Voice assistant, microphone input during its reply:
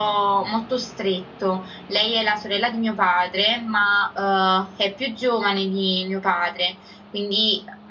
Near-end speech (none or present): none